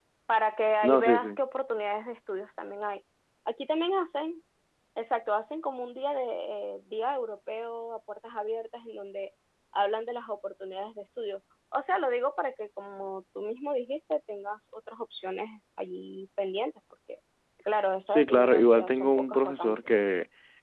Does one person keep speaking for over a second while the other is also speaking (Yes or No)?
Yes